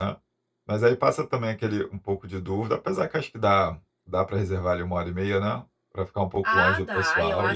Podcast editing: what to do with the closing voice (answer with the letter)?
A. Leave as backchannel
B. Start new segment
B